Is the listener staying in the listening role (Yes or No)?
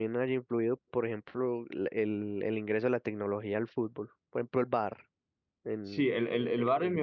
No